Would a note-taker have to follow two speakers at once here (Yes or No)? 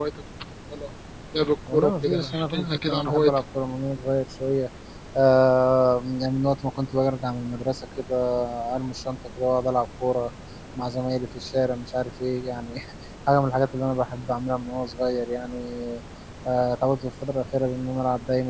Yes